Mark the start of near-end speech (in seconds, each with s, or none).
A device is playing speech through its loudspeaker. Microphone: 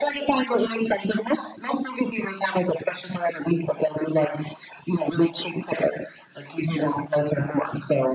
none